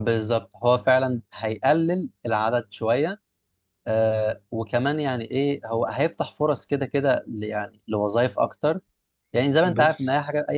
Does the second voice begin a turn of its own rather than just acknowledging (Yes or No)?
No